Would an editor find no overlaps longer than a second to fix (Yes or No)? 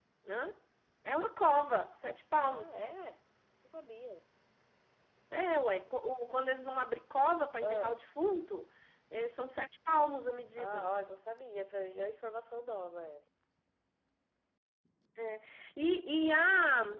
Yes